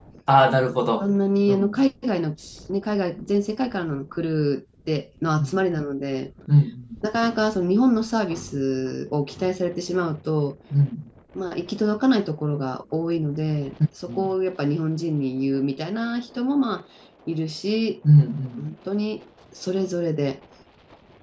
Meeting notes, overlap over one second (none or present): none